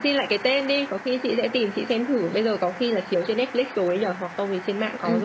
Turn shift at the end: Yes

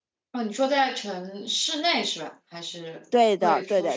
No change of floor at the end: No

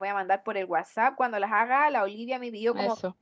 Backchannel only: Yes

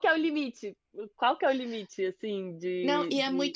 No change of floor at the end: No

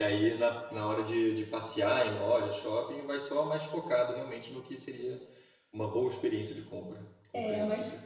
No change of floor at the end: No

